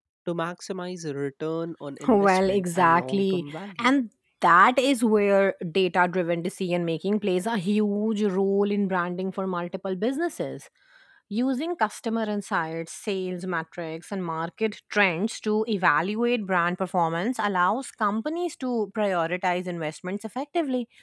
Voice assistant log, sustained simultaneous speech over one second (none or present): present